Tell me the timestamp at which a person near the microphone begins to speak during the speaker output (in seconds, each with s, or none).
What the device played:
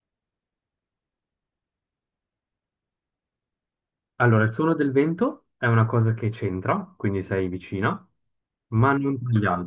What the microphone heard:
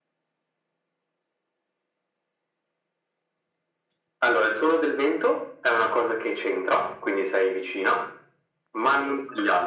none